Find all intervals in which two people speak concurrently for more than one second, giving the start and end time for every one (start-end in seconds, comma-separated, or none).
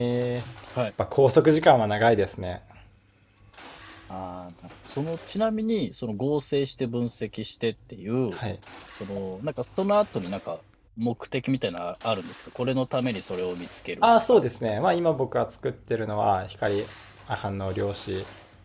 none